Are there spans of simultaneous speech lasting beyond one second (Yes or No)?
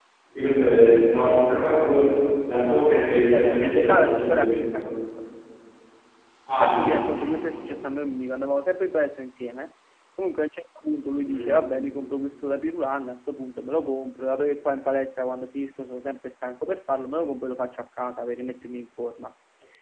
Yes